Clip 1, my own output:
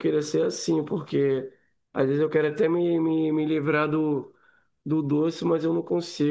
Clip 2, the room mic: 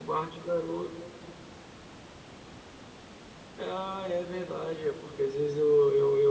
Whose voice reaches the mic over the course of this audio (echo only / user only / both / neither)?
user only